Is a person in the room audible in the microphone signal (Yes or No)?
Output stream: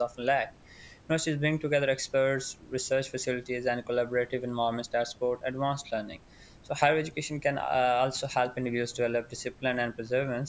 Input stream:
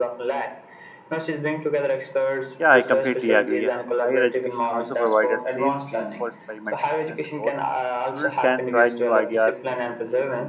Yes